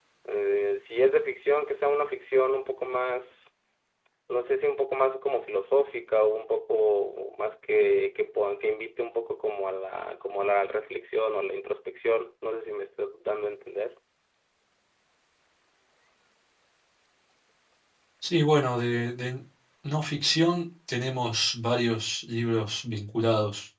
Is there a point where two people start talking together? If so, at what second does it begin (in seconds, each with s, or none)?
none